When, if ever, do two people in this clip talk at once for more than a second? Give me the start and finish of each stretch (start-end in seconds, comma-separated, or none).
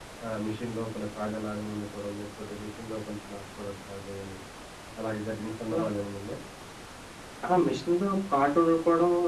none